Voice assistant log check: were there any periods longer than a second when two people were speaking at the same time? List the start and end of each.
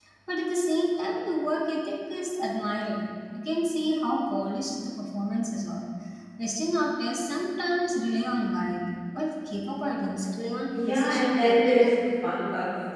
10.7-11.9

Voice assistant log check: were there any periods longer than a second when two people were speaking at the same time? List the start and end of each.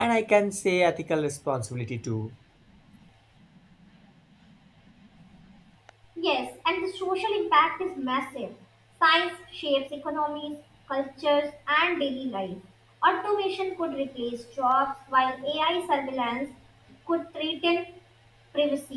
none

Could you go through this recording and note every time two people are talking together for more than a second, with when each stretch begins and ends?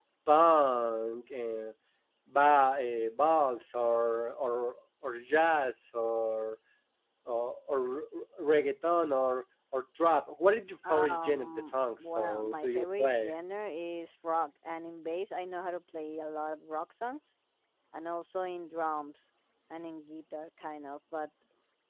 10.9-13.3

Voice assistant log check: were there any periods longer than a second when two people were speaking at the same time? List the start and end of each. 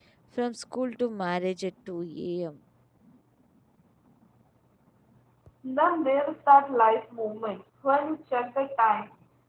none

